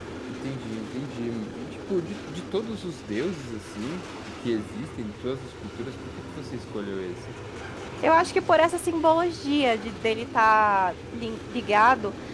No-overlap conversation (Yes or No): Yes